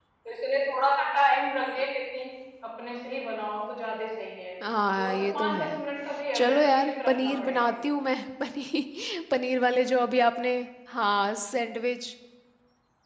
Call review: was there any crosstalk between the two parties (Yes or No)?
Yes